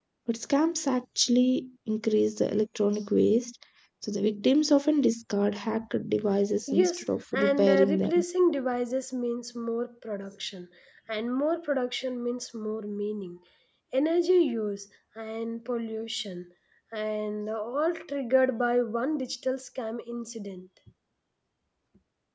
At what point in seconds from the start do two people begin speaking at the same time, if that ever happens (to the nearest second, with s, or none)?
7 s